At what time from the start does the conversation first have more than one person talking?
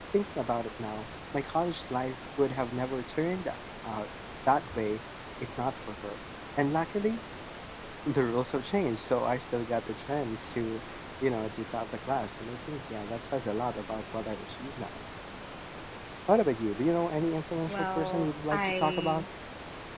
17.7 s

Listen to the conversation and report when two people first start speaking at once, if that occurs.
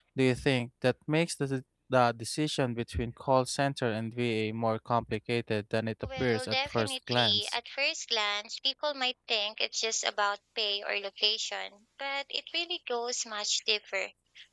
6.0 s

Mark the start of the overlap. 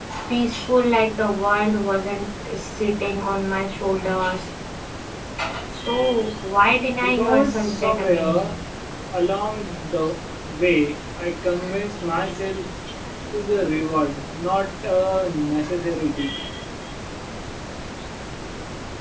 7.0 s

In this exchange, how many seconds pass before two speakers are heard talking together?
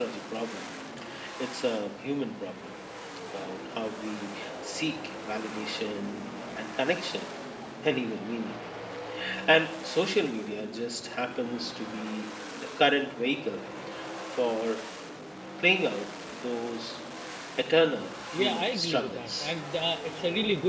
18.3 s

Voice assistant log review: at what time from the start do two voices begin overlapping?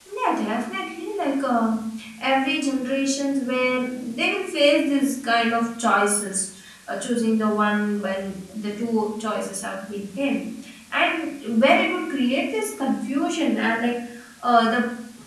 none

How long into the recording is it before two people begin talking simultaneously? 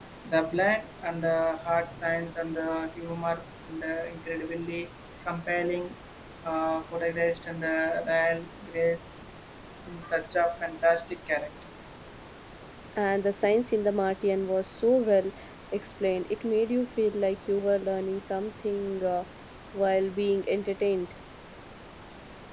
none

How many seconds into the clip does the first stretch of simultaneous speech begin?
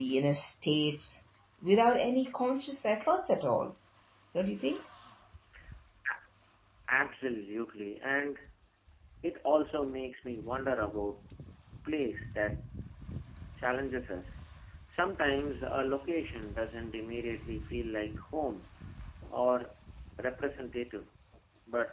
none

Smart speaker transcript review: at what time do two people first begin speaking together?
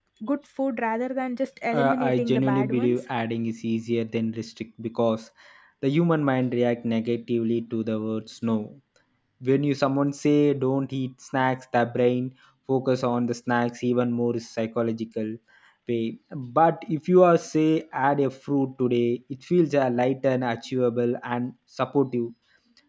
1.7 s

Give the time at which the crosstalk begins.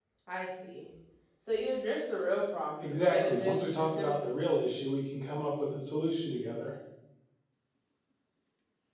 2.8 s

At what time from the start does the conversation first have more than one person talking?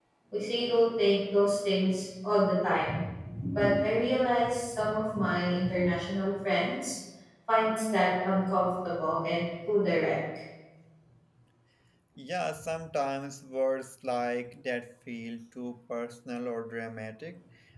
none

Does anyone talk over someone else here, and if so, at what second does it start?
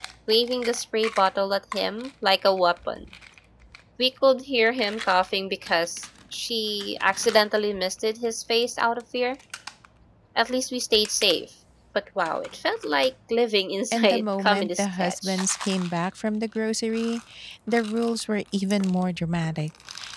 13.9 s

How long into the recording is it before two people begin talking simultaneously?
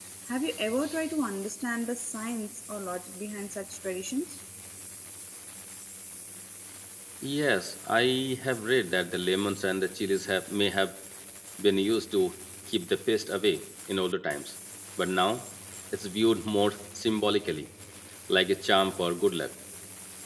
none

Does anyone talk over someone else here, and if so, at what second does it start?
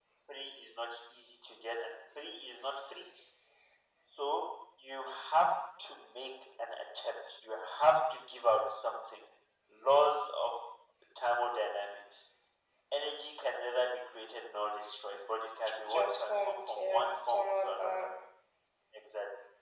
15.9 s

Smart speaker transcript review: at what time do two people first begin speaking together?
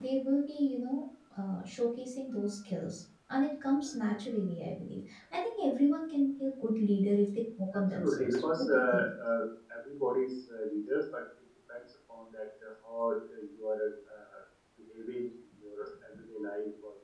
7.7 s

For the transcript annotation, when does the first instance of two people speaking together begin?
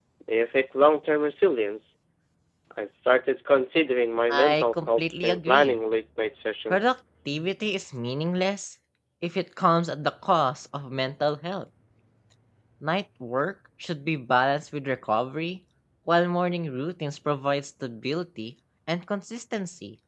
4.3 s

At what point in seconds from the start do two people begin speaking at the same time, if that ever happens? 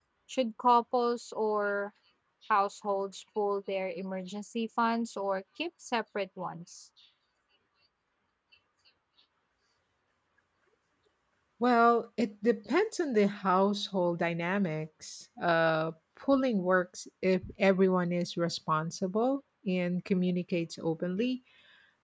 none

